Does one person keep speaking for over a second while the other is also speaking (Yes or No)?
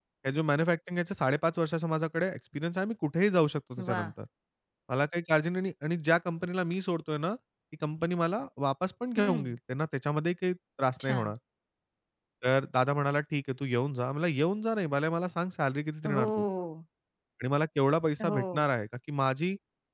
No